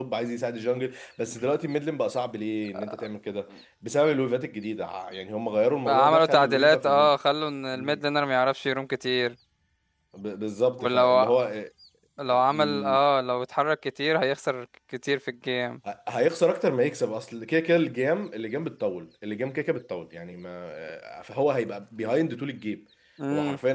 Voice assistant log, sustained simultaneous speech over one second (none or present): present